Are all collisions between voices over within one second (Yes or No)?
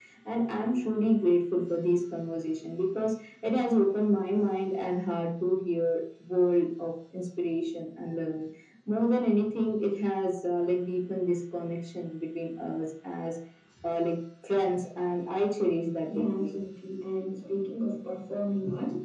Yes